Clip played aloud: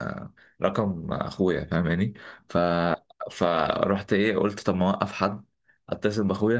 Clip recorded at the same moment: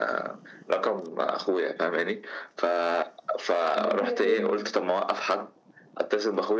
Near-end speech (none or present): present